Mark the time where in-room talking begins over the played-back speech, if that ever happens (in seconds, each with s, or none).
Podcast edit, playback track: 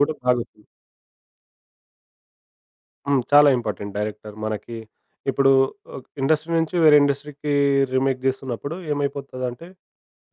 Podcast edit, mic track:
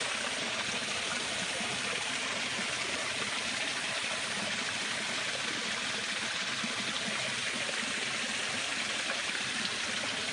none